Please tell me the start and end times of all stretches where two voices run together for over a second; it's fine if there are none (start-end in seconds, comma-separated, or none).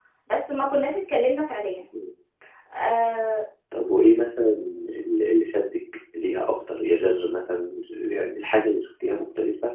none